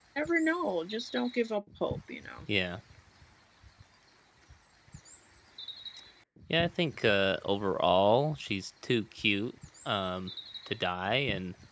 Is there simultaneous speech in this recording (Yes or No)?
No